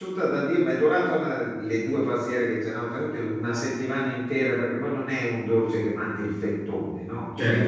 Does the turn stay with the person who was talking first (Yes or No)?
Yes